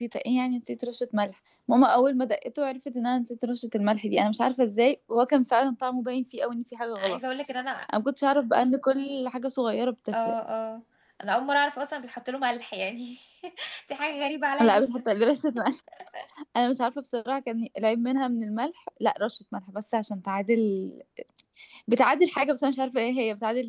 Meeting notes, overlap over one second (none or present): none